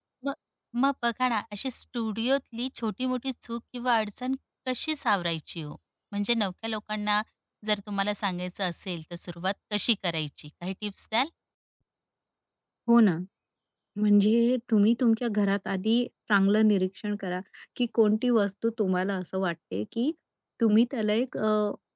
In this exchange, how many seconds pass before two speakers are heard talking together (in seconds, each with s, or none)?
none